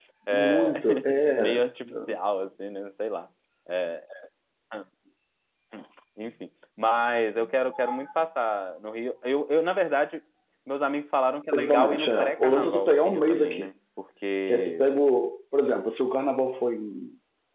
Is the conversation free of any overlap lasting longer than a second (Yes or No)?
No